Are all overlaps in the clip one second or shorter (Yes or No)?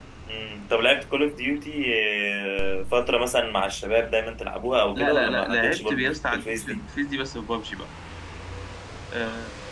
No